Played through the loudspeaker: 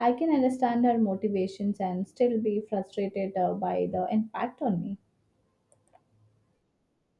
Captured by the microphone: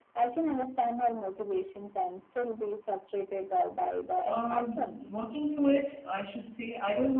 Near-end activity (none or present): present